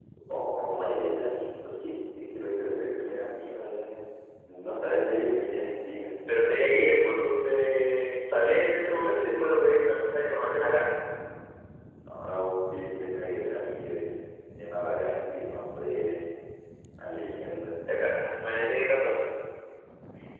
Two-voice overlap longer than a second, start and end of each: none

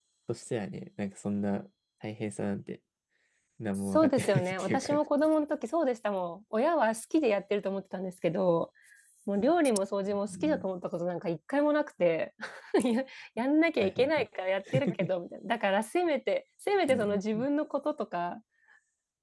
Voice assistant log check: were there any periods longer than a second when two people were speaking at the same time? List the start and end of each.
3.8-5.0

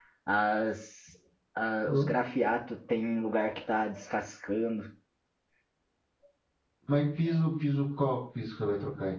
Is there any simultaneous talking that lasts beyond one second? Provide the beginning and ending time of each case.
none

